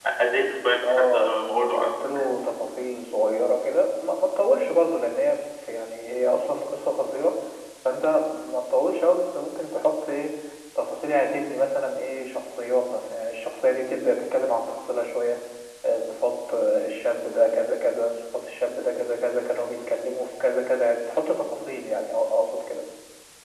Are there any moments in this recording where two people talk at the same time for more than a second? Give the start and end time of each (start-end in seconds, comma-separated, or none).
0.8-2.3